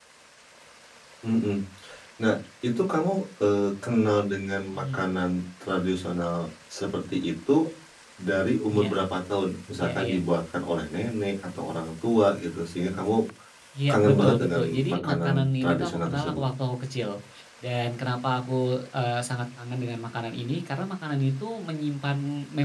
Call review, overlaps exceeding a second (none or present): present